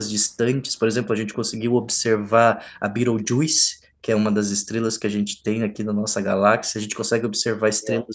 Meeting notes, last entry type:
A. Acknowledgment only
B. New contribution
A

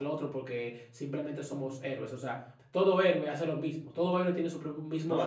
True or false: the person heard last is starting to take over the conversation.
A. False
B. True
B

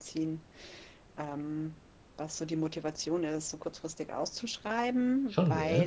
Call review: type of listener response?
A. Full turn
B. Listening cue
B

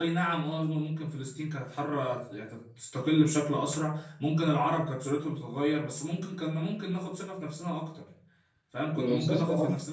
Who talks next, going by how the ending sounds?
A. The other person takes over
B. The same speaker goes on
B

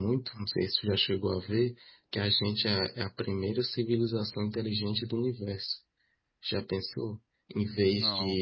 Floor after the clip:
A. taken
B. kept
B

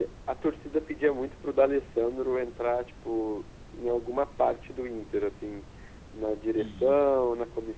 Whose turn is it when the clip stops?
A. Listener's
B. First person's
B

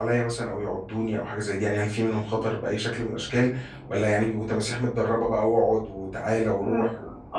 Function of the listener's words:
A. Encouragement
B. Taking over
B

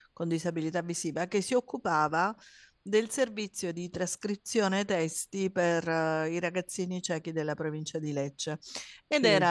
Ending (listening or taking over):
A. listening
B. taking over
A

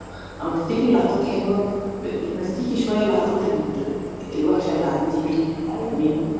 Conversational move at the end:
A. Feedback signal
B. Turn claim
B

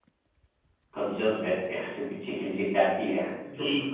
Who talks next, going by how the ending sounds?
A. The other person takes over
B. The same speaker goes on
A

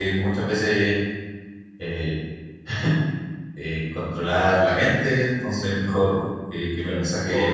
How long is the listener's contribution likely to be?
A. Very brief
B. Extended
B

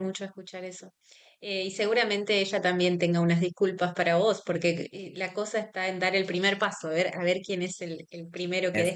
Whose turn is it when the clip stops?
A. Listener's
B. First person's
B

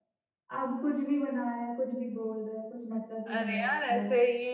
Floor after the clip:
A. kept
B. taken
B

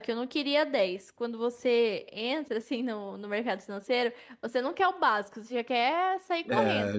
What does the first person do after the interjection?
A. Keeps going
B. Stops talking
B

